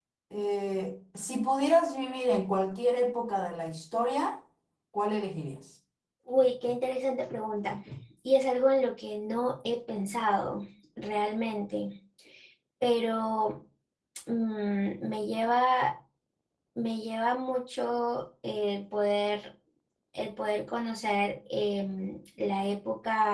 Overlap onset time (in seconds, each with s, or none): none